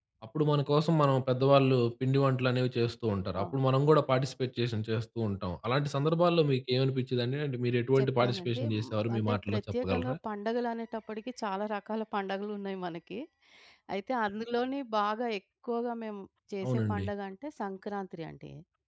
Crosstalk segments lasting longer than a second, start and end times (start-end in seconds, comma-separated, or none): 8.0-10.2